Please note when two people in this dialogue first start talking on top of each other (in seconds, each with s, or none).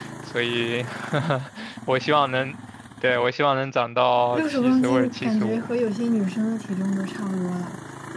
4.3 s